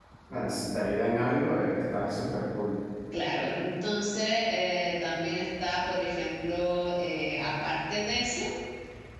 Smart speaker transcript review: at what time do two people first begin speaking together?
none

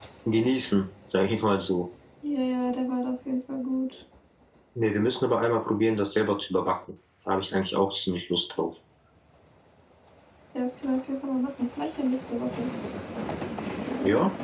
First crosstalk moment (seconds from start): none

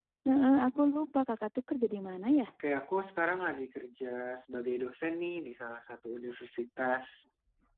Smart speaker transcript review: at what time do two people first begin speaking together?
none

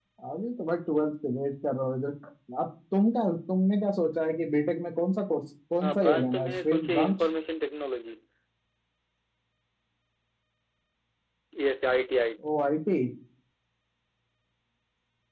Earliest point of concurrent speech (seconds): 5.8 s

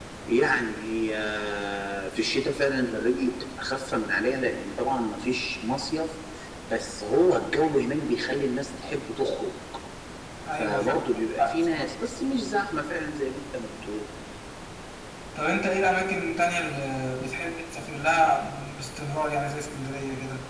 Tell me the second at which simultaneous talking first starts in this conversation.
10.6 s

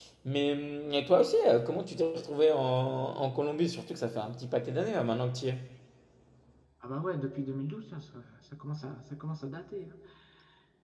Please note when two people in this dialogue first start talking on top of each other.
none

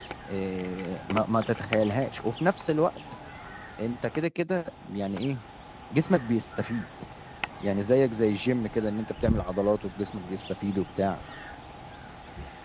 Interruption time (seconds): none

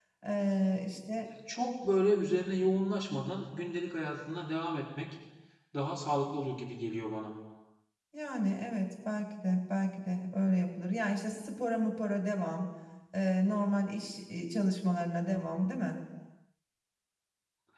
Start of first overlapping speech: none

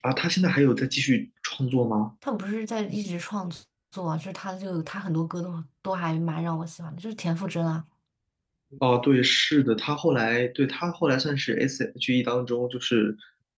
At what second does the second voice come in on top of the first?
none

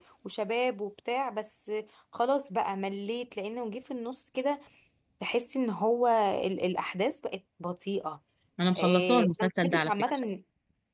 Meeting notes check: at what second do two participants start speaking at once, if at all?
8.8 s

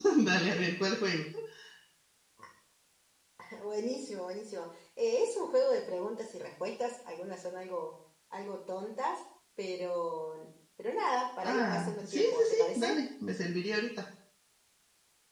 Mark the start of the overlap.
11.4 s

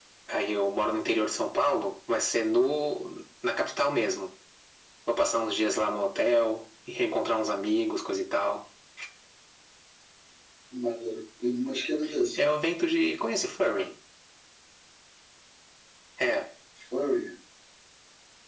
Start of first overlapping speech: none

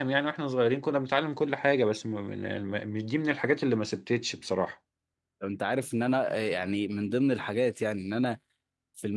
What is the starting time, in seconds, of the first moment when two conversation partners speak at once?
none

